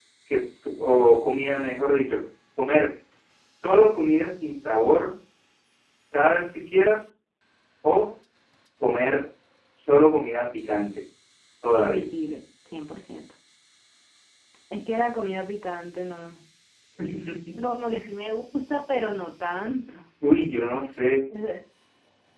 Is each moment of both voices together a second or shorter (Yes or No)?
Yes